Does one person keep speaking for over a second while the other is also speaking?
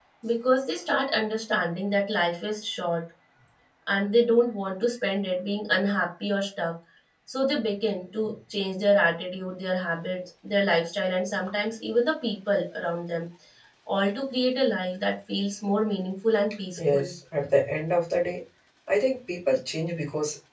No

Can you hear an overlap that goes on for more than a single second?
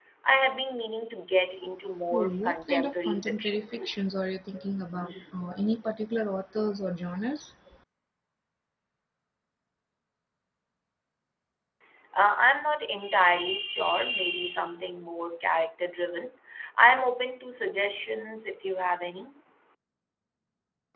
Yes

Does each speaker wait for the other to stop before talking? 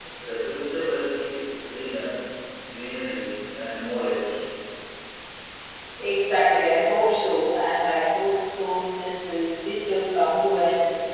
Yes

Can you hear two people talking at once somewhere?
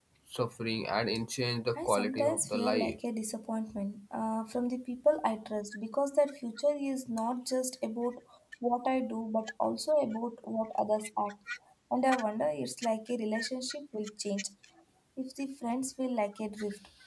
Yes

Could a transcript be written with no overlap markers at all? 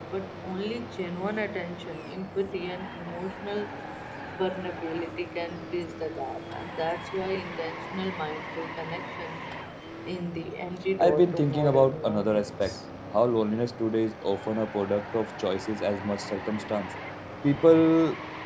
No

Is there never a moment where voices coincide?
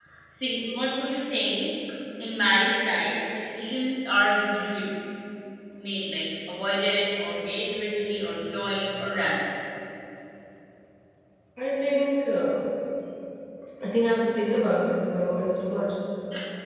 Yes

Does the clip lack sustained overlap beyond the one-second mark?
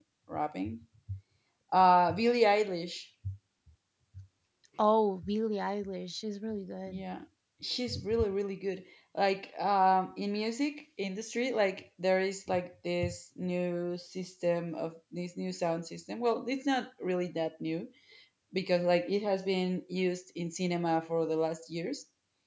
Yes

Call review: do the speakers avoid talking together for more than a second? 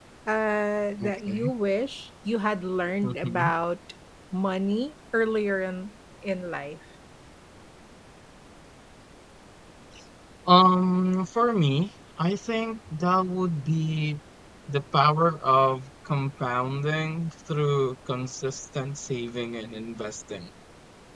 Yes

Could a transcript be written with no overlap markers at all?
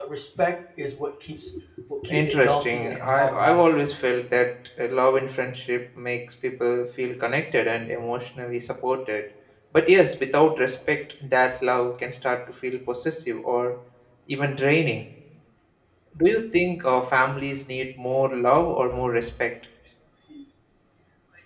No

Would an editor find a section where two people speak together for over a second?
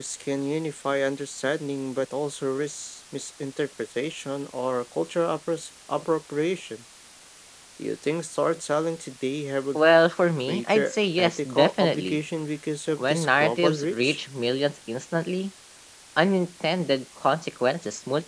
Yes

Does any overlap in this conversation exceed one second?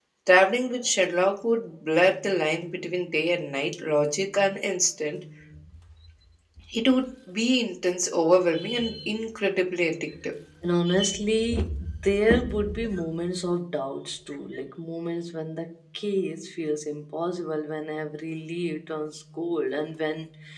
No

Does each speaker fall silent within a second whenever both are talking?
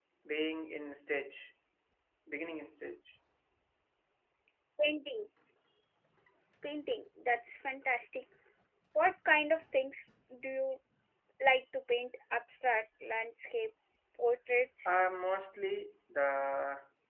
Yes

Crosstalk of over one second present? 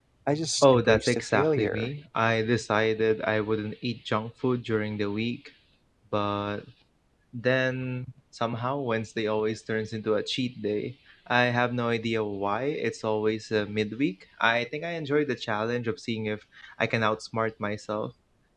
Yes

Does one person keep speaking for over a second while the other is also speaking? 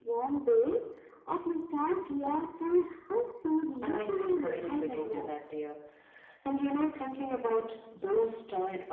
Yes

